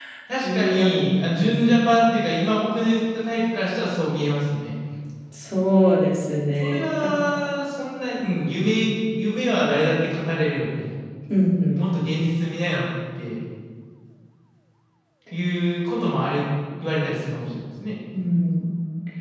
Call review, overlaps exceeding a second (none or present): present